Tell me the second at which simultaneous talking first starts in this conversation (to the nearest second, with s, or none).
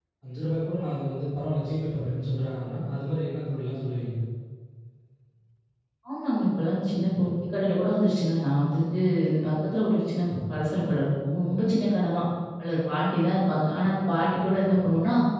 none